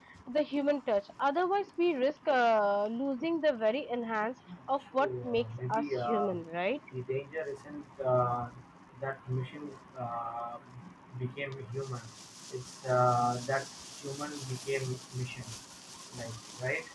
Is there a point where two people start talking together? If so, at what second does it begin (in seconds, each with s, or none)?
4.9 s